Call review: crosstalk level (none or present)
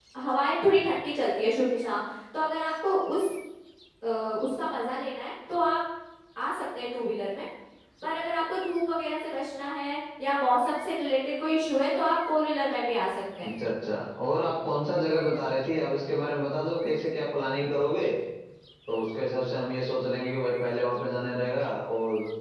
none